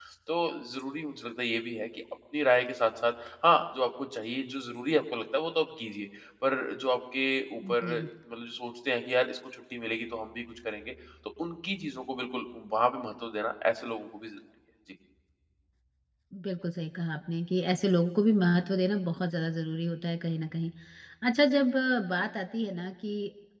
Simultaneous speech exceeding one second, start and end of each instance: none

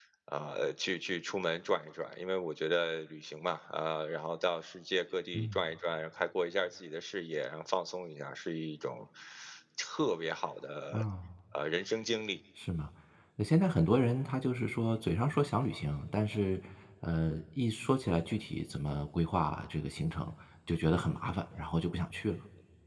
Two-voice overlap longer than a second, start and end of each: none

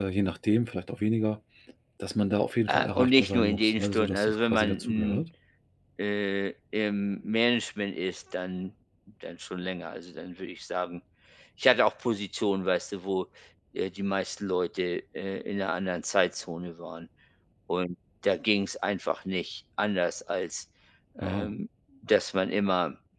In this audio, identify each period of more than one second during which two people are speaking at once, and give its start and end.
2.7-5.2

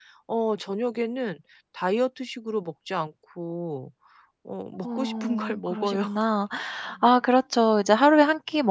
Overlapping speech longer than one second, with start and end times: 4.8-6.0

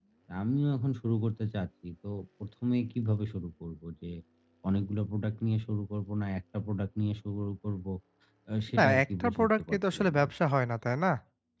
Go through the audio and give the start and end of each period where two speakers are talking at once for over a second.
8.8-10.3

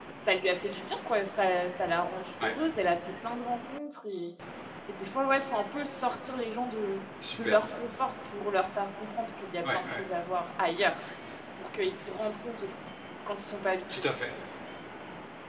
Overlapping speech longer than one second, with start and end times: none

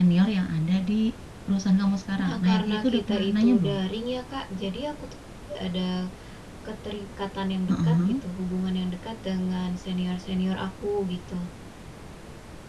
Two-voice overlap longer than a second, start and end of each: 2.2-3.8

